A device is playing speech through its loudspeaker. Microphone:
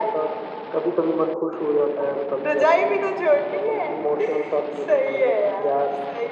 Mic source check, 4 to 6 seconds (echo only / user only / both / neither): echo only